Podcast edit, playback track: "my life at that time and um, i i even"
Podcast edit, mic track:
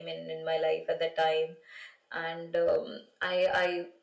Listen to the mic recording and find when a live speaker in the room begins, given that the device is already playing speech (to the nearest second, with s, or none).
none